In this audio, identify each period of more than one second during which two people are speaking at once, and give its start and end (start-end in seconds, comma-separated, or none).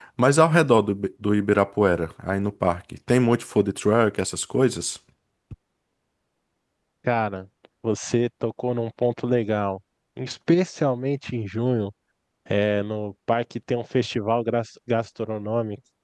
none